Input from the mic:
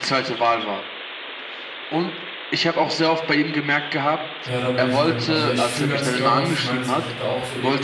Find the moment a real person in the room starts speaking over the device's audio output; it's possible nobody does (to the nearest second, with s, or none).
4 s